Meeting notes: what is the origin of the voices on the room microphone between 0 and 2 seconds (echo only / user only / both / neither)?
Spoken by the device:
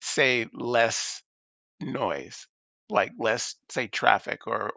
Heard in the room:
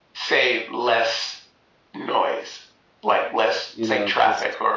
echo only